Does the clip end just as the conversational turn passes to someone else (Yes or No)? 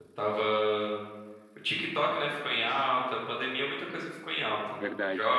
No